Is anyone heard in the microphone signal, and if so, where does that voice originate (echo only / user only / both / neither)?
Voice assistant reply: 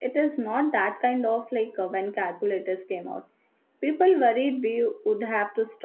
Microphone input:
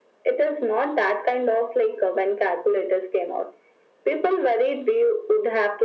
echo only